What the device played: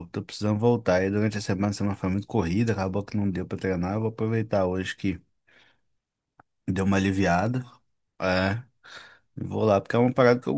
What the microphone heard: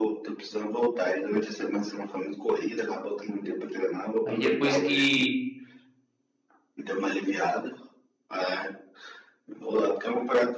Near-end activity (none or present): present